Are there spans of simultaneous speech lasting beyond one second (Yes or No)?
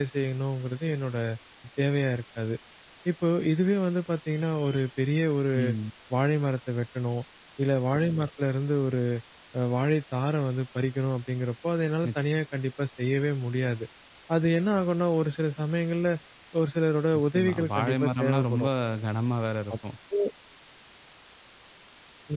Yes